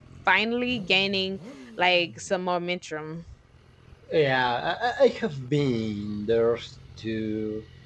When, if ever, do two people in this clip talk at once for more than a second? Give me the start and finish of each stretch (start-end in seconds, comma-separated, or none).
none